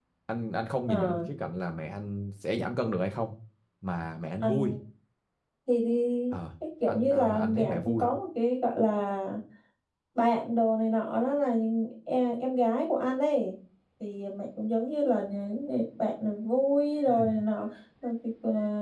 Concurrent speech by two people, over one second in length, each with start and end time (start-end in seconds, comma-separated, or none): 6.9-8.1